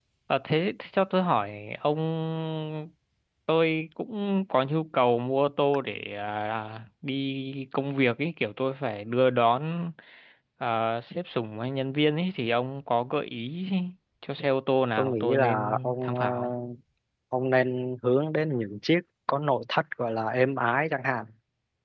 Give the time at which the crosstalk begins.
15.0 s

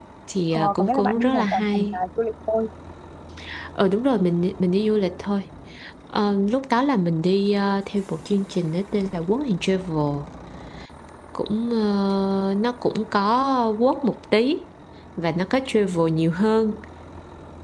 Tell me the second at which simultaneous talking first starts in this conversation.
0.5 s

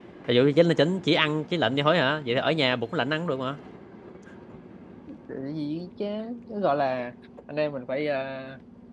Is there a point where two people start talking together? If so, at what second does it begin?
none

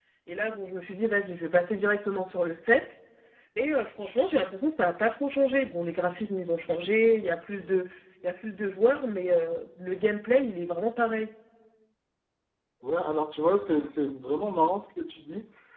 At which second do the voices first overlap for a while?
none

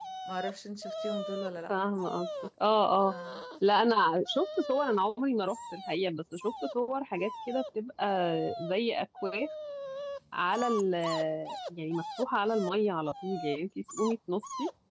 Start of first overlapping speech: none

